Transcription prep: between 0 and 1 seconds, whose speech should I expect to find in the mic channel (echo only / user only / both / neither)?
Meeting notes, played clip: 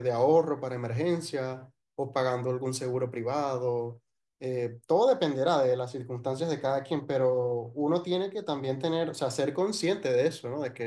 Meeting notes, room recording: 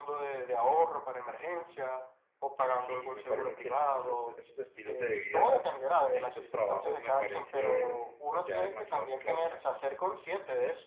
echo only